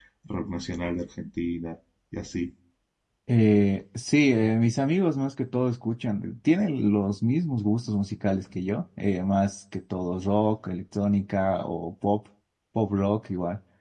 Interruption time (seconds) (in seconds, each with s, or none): none